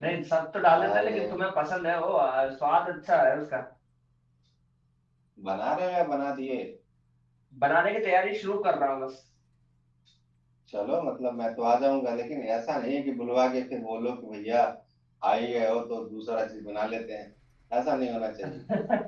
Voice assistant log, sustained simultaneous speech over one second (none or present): none